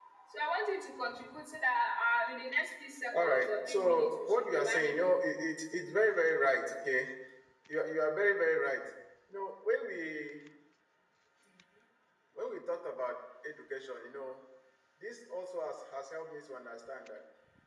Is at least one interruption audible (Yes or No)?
Yes